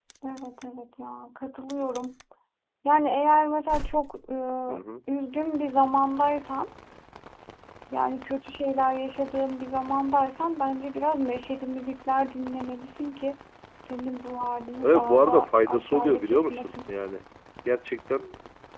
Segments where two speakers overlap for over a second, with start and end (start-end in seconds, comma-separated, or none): 14.8-16.9